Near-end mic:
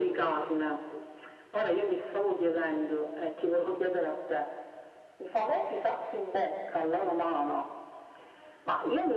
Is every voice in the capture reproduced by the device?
Yes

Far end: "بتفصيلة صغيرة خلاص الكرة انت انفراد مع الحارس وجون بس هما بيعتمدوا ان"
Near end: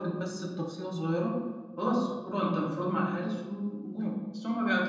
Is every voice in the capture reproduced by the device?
Yes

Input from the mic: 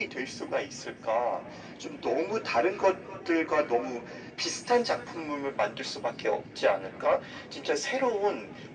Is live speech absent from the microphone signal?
Yes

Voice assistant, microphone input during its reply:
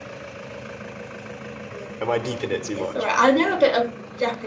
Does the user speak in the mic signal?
Yes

